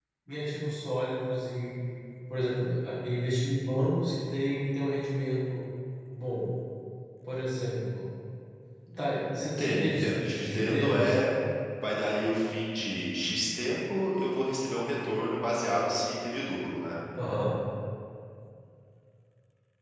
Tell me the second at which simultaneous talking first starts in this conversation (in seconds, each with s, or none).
9.4 s